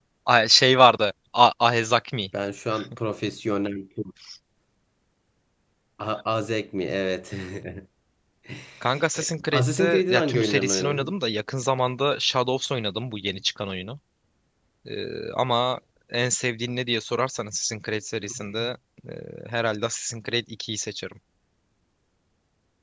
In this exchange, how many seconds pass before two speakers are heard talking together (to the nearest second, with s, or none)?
9 s